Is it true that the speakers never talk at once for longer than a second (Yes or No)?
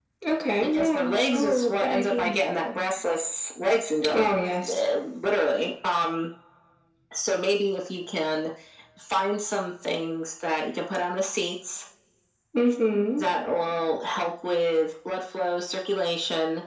No